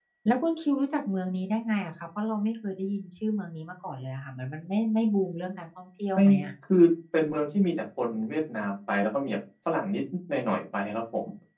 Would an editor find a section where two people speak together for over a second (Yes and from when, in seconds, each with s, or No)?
No